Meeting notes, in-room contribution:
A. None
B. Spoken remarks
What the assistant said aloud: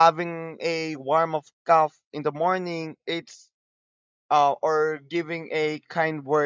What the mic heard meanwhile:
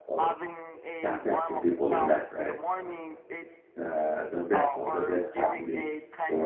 B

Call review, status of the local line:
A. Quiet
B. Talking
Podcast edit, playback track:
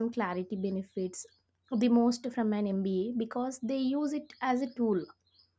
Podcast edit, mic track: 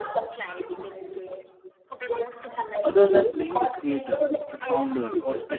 B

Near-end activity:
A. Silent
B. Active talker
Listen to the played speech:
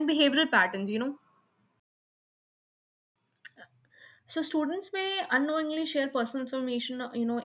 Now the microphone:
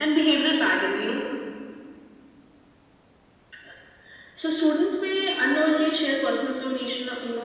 A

